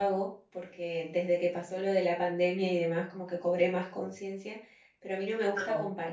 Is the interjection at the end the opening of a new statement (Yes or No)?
No